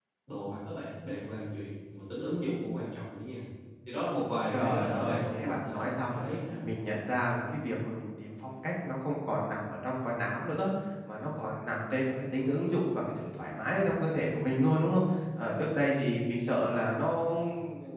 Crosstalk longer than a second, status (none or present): present